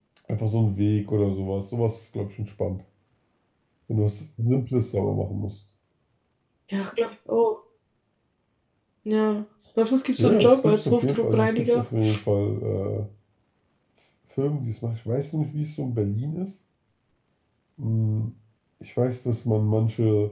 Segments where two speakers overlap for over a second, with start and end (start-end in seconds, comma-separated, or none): 10.2-11.8